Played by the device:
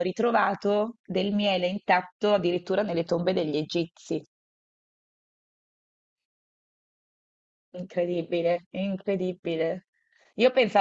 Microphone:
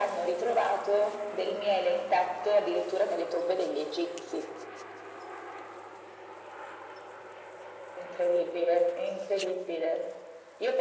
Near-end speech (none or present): none